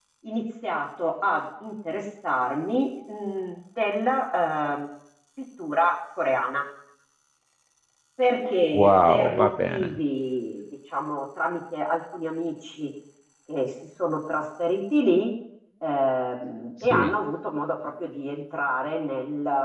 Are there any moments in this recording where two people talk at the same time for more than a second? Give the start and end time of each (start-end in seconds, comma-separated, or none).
8.7-10.0